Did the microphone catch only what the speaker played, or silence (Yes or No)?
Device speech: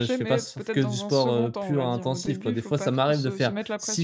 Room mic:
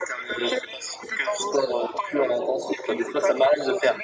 Yes